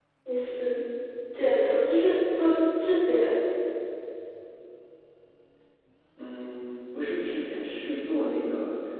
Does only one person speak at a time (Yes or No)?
Yes